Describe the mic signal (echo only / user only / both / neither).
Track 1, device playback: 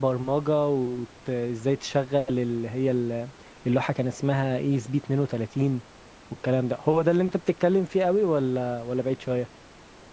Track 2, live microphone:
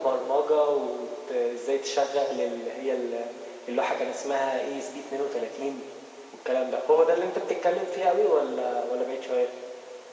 echo only